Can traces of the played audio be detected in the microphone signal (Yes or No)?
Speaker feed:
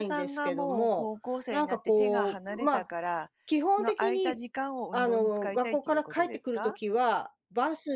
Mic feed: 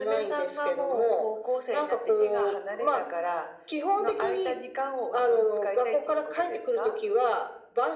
Yes